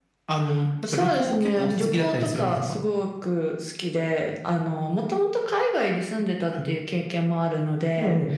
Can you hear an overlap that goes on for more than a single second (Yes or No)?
Yes